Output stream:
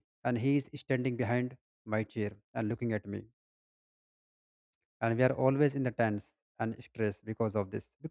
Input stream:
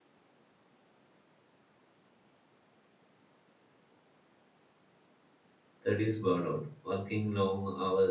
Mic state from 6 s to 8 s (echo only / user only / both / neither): user only